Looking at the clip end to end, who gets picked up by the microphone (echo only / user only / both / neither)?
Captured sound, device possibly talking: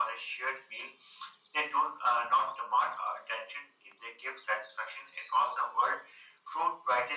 echo only